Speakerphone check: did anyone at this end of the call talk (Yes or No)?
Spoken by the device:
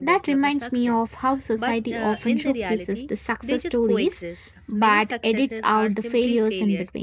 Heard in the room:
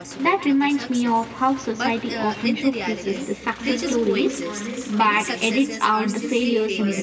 Yes